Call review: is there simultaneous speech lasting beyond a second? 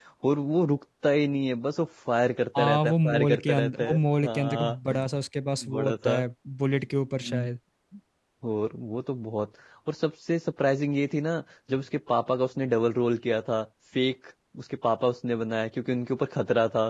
Yes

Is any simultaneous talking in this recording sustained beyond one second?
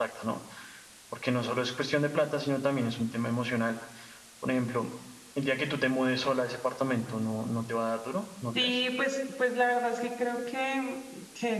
No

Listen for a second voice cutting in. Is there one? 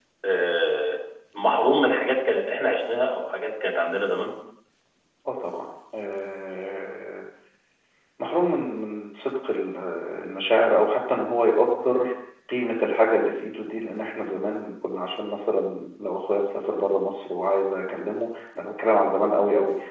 No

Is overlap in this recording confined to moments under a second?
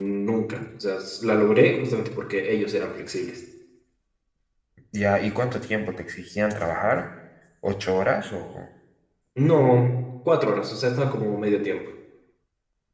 Yes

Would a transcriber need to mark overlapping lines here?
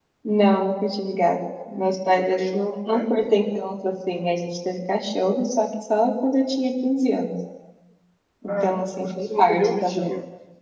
Yes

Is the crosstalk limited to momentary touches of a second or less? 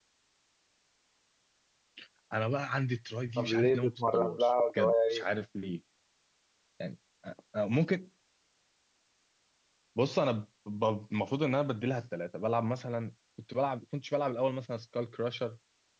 No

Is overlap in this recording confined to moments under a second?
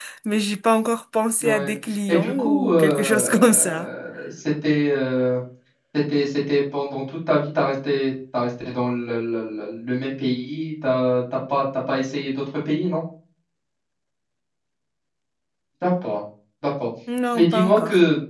No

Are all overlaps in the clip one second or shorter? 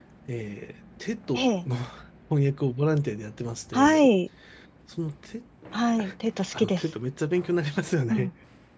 Yes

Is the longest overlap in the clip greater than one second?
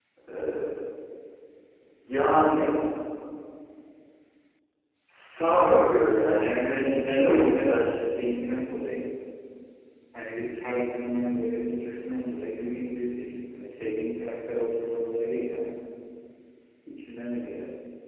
Yes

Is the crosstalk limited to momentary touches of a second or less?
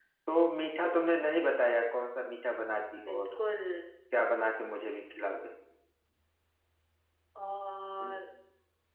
Yes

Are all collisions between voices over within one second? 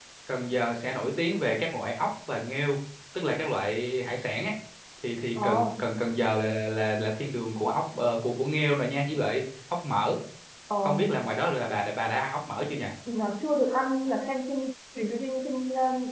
Yes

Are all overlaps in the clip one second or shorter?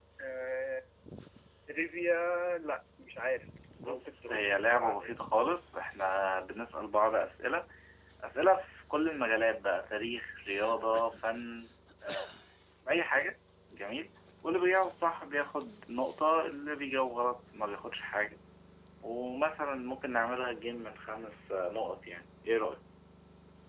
No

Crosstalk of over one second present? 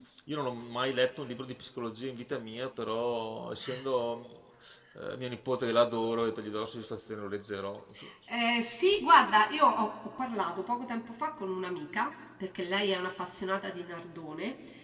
No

